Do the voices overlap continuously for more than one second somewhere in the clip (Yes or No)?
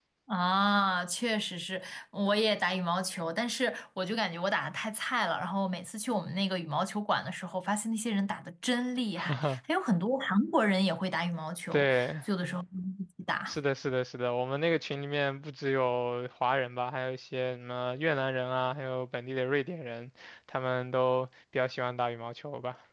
No